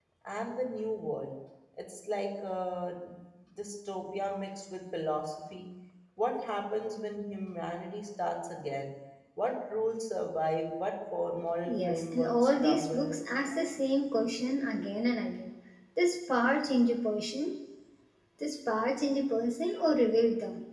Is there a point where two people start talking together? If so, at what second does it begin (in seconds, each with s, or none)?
11.7 s